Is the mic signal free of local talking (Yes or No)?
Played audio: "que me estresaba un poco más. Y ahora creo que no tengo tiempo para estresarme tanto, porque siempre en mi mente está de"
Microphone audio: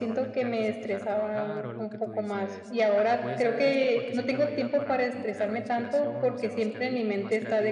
No